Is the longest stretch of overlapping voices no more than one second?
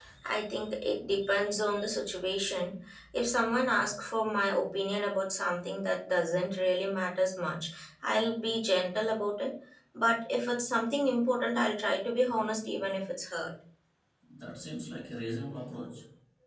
Yes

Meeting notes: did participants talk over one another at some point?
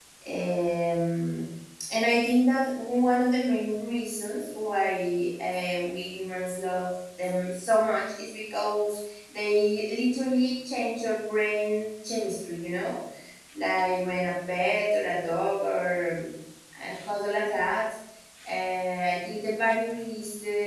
No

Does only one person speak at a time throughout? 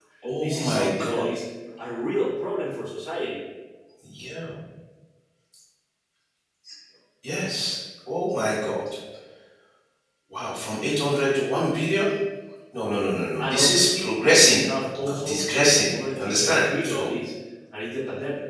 No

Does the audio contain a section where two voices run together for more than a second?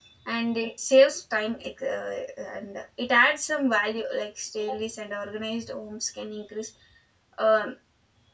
No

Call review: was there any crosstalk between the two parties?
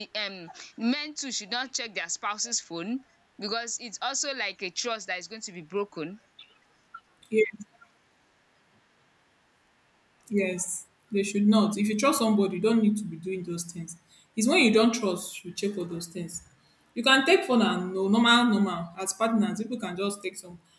No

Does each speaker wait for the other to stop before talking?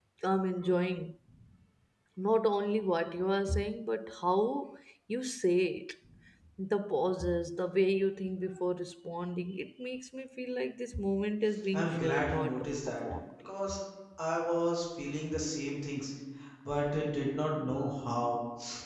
No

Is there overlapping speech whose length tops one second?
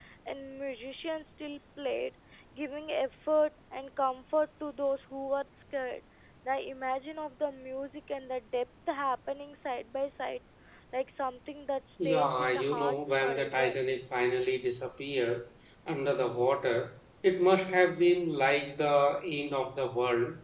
Yes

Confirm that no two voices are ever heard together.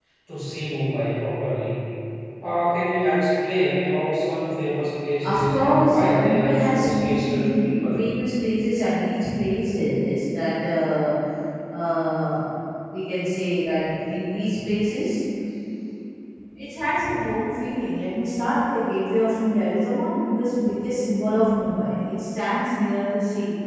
No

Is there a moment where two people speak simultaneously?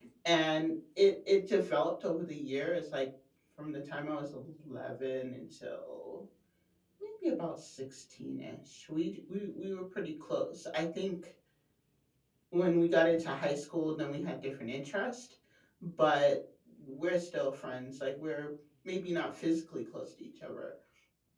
No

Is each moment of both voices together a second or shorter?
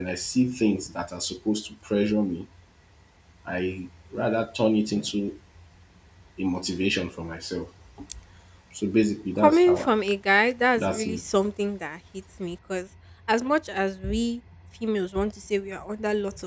Yes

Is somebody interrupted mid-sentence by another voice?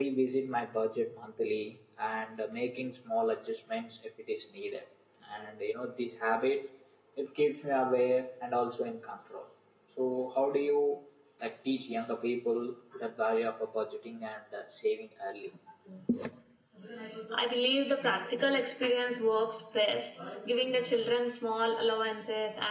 No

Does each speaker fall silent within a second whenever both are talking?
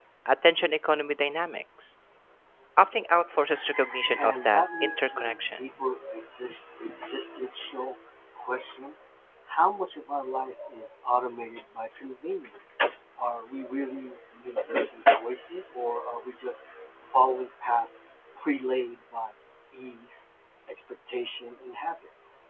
No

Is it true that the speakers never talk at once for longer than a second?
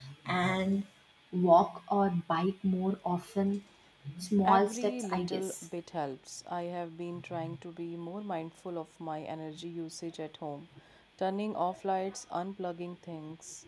No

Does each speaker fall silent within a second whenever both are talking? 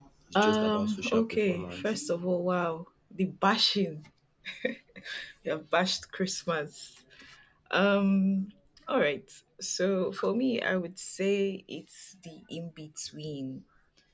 No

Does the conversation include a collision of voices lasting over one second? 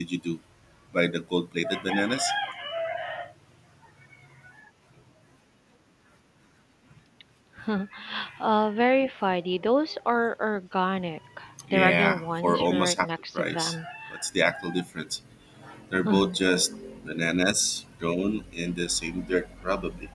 Yes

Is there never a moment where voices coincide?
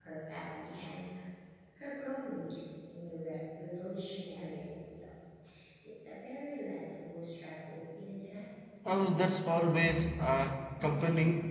Yes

